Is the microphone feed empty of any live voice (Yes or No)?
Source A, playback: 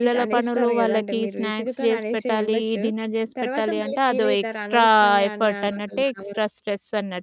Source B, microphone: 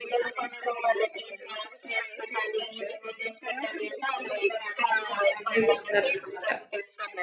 No